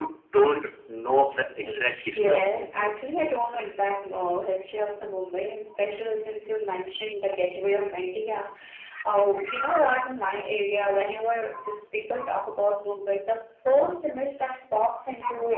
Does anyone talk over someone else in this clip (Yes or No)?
Yes